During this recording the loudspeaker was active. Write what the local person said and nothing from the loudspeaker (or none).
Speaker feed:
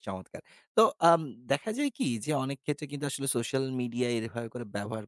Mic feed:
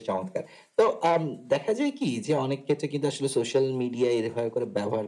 none